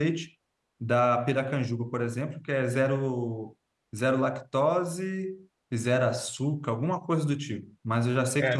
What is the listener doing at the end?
taking over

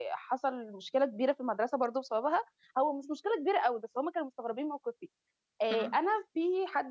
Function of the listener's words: listening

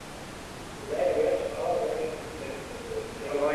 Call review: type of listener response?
taking over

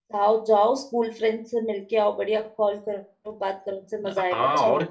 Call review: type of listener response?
taking over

